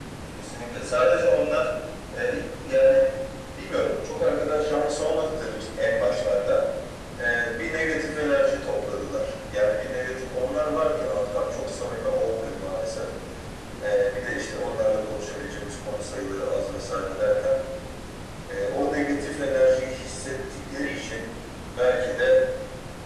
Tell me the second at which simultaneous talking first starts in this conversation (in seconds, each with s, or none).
none